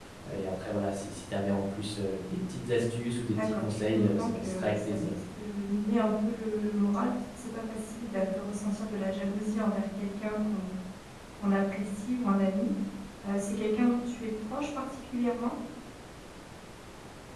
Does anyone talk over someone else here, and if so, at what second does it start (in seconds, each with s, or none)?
3.3 s